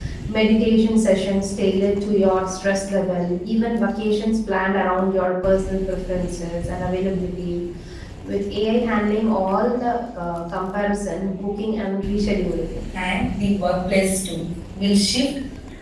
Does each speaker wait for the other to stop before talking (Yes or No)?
Yes